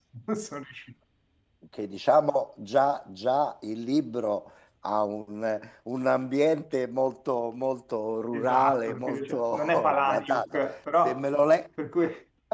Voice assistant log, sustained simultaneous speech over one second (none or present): present